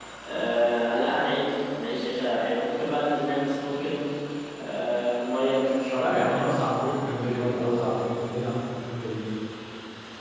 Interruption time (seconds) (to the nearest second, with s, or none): 6 s